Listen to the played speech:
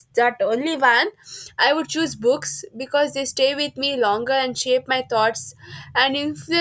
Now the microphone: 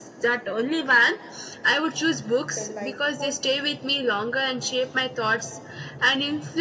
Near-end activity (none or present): present